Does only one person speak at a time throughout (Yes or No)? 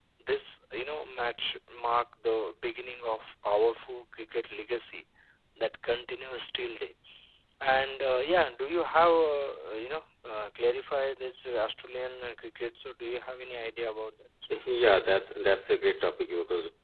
Yes